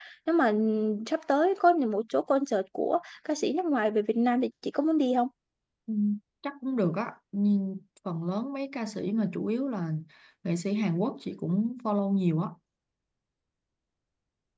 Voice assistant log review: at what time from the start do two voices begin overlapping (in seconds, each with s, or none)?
none